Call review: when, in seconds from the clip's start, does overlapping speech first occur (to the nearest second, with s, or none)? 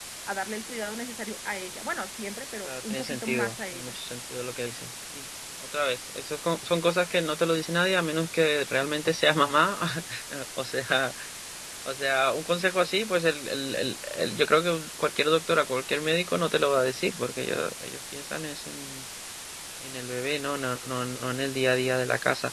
3 s